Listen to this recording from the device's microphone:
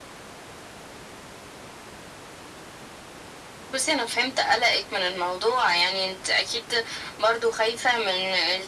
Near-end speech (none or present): none